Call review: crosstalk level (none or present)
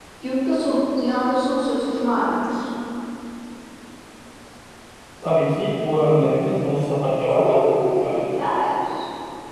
present